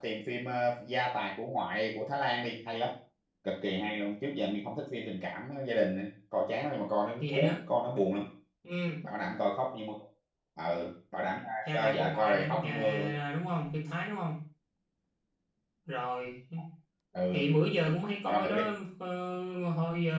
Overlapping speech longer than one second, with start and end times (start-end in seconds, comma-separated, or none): 11.7-13.2